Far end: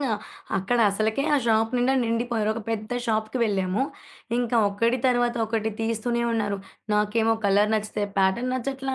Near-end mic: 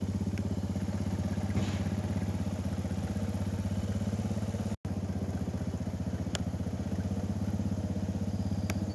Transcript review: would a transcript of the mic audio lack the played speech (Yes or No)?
Yes